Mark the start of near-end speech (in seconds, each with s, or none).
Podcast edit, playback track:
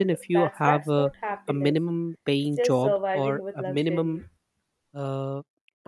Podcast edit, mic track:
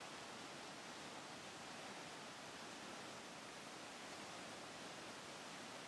none